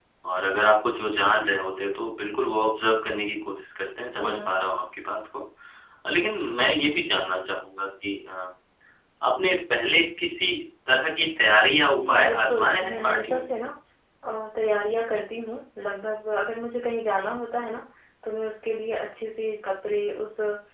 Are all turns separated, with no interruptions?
No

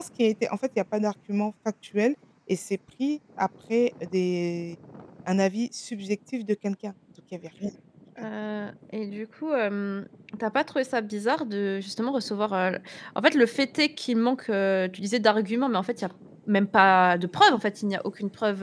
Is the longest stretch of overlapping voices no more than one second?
Yes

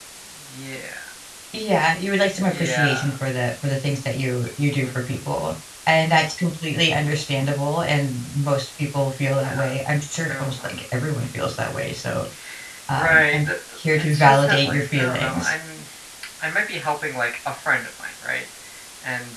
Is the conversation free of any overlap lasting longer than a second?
No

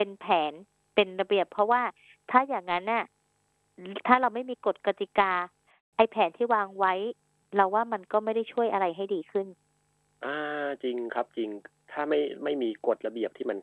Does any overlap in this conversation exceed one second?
No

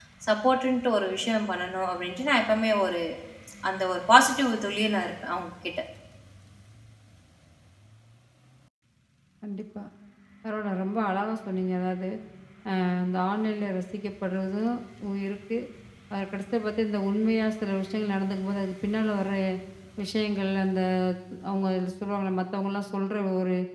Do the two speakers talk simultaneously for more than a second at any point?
No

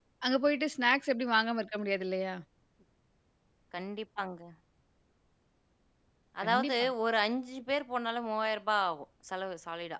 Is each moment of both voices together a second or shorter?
Yes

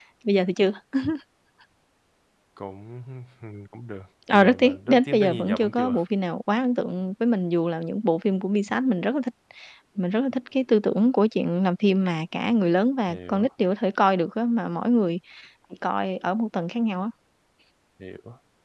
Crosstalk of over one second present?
Yes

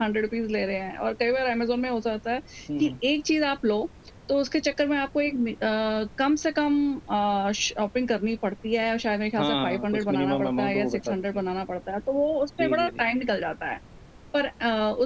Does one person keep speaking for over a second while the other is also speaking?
Yes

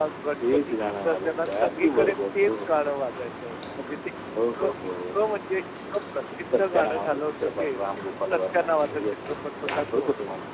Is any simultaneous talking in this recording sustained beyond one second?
Yes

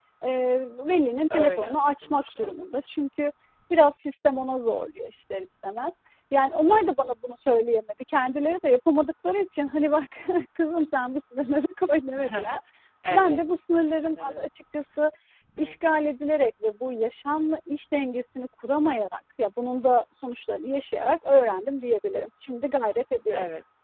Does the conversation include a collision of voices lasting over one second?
Yes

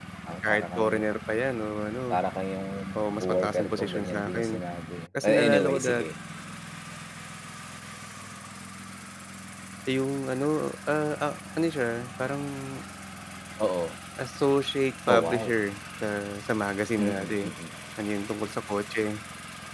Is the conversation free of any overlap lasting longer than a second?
No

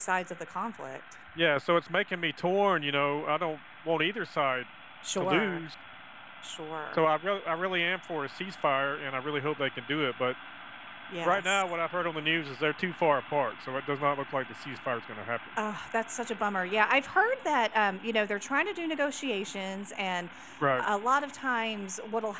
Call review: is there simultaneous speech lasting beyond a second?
No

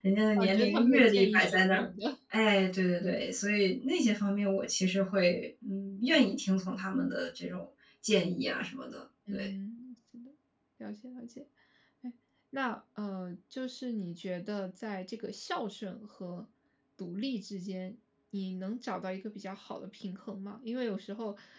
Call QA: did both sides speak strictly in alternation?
No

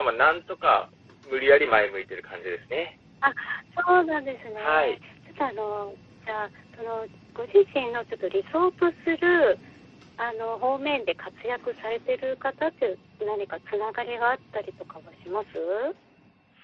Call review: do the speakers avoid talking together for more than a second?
Yes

